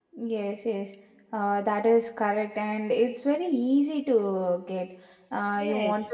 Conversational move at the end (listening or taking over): listening